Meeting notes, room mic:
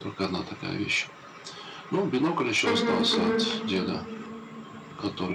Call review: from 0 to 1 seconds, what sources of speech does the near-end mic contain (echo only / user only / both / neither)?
echo only